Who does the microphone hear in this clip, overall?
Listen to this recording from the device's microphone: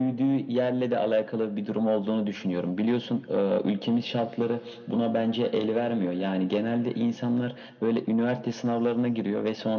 echo only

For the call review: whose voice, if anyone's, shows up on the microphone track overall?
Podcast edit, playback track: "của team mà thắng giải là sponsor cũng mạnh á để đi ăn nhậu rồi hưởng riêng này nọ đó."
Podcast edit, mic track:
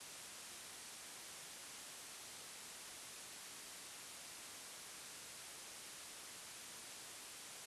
neither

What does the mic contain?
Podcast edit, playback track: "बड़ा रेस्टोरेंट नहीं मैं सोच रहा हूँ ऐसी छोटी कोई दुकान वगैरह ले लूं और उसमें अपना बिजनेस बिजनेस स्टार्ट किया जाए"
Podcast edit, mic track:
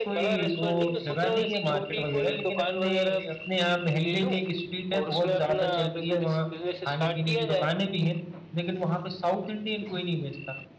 both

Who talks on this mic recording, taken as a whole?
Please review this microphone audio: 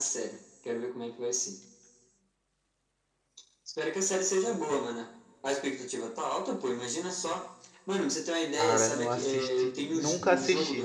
both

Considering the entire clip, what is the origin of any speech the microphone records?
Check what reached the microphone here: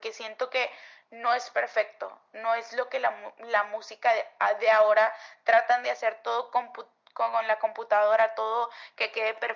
echo only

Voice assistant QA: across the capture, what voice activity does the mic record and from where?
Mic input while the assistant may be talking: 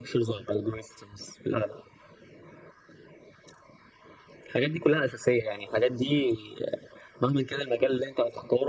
echo only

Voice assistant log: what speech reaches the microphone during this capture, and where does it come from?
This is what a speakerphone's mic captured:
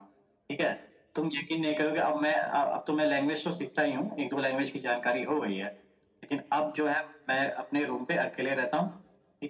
echo only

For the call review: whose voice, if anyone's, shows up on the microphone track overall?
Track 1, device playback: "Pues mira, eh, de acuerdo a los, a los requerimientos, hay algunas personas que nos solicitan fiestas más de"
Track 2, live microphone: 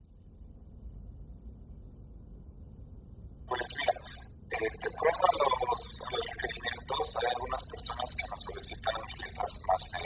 echo only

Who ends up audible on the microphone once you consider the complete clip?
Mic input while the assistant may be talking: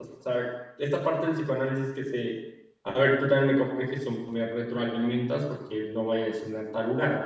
user only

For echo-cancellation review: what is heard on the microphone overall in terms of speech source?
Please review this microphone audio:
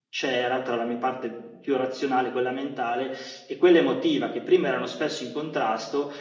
user only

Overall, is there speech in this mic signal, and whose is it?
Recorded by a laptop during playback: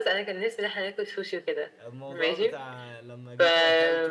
both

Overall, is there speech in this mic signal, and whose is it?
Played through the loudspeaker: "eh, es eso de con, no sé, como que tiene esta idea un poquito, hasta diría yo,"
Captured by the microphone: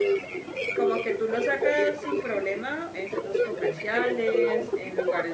both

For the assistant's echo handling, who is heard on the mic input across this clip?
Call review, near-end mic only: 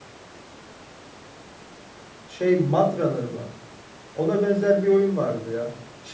user only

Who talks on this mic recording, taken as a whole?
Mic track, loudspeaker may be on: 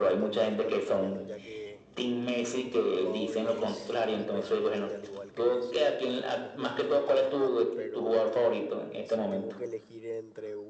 both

